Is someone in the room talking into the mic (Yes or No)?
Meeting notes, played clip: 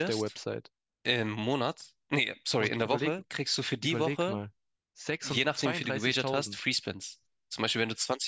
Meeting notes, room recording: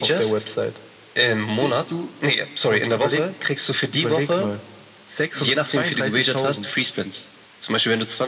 Yes